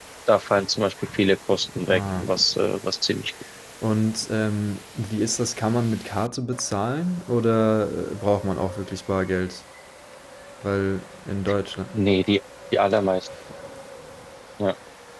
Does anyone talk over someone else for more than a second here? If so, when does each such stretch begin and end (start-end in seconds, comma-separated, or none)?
none